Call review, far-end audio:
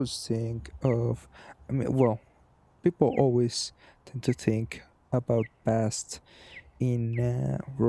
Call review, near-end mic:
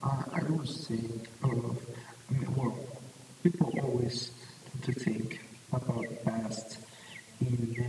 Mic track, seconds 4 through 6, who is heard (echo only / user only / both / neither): echo only